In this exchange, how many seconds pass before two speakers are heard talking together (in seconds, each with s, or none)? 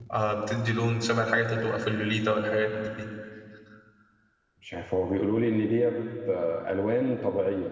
none